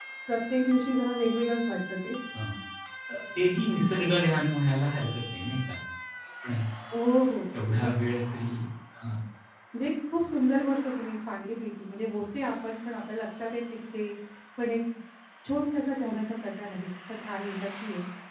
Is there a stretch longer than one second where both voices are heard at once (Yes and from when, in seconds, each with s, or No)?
No